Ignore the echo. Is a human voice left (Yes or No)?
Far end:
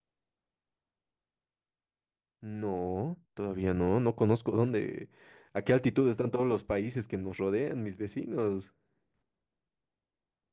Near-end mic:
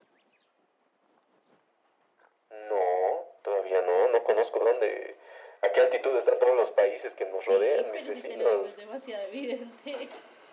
Yes